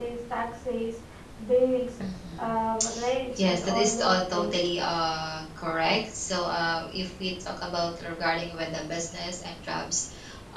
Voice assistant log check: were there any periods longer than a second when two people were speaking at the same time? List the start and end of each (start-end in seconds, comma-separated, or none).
3.4-4.6